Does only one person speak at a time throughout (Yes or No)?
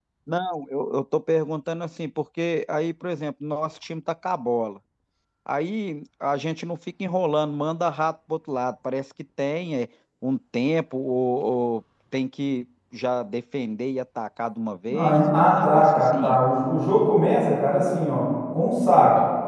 No